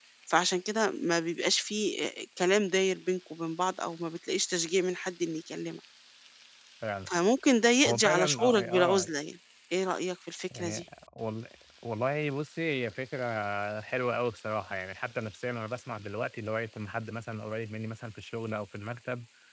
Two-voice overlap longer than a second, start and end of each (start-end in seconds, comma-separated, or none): 7.8-9.1